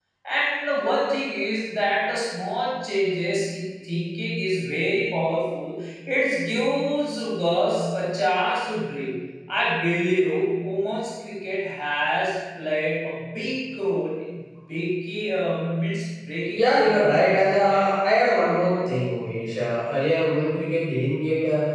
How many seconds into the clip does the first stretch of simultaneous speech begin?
16.6 s

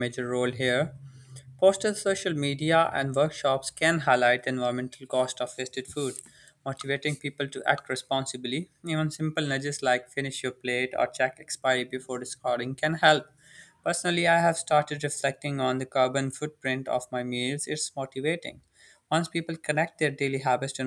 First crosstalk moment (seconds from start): none

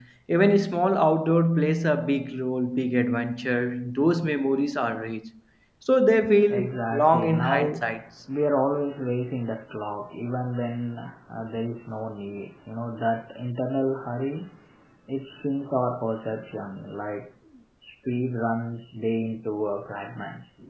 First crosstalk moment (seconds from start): 6.5 s

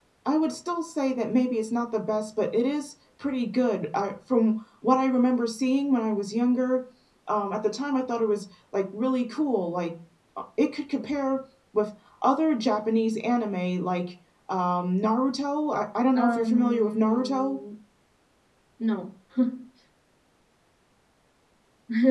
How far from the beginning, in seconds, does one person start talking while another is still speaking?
16.1 s

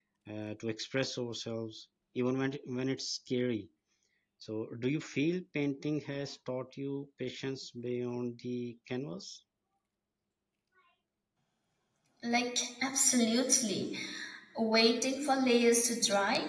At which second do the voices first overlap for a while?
none

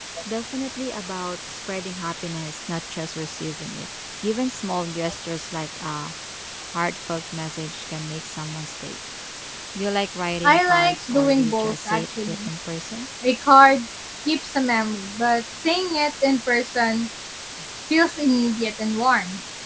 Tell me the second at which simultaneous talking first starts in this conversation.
10.4 s

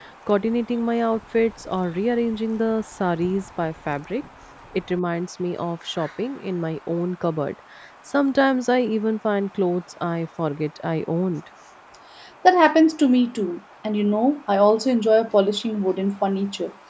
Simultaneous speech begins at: none

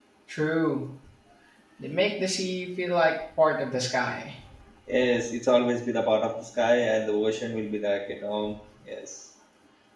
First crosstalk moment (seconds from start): none

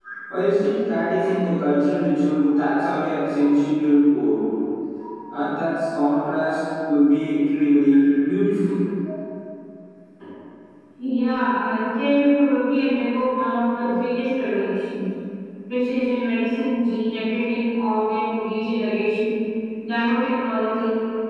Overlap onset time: none

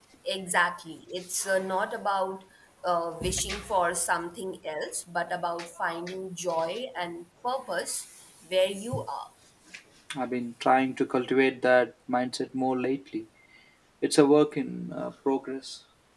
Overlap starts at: none

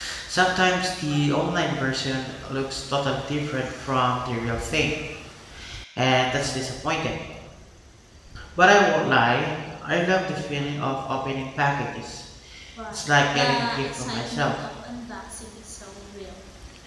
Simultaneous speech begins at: 12.9 s

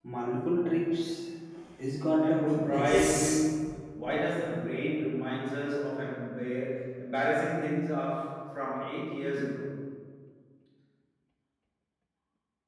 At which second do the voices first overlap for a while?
2.2 s

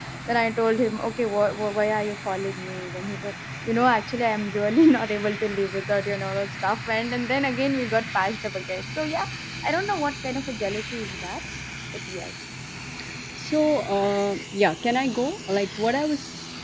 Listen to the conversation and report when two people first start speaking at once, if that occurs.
none

